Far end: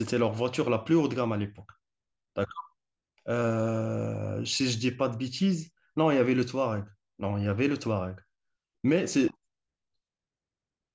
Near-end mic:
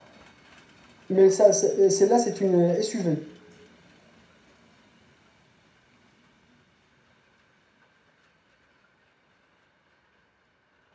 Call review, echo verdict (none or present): none